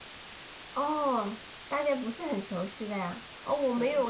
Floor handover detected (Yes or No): No